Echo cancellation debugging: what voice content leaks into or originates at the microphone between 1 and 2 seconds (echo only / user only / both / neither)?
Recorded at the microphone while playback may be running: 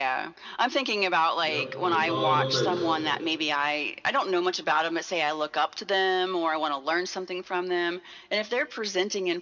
both